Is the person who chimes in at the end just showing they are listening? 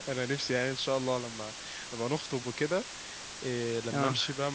Yes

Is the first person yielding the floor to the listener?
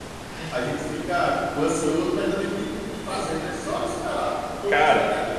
No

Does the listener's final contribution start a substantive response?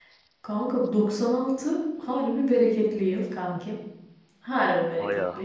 No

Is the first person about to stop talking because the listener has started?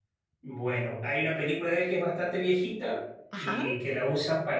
No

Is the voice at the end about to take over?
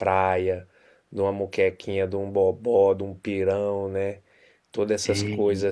No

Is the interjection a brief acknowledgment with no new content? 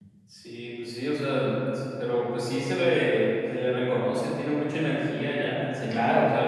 No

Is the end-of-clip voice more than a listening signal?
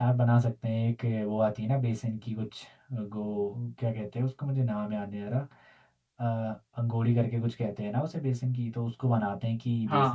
No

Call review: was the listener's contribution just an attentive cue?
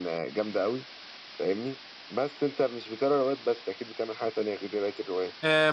No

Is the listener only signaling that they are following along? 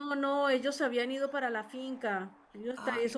Yes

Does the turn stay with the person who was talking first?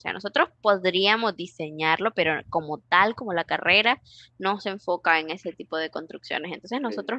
Yes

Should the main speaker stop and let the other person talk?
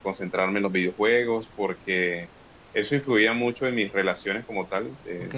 Yes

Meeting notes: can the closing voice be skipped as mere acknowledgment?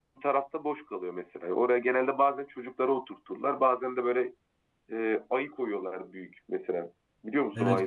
No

